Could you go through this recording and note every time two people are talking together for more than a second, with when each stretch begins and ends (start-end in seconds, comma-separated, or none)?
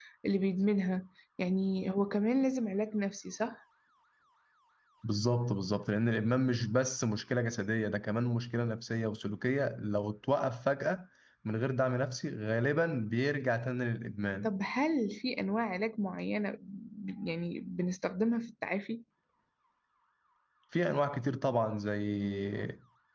none